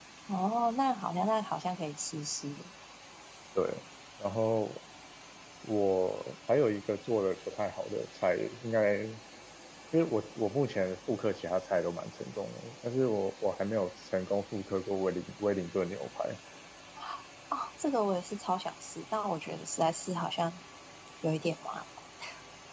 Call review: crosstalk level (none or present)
none